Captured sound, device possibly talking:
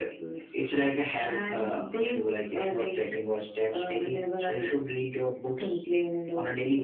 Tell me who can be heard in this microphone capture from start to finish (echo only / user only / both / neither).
echo only